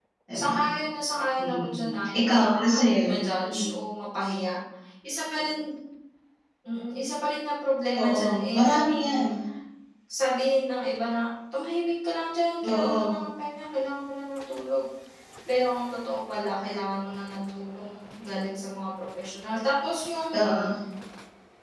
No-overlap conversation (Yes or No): No